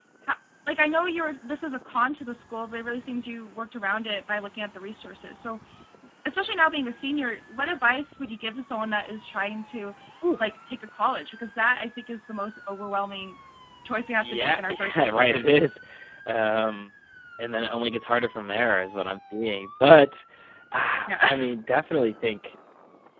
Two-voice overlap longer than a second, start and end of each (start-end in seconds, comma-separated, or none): 14.2-15.6